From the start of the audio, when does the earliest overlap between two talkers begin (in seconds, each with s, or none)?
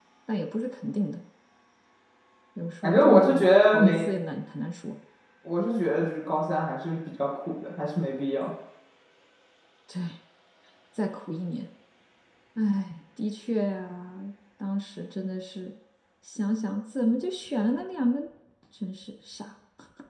2.8 s